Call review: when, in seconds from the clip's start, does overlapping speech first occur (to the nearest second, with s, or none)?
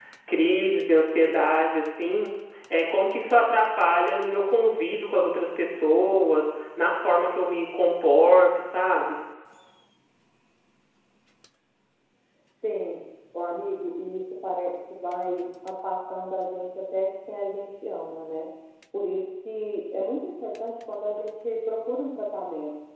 none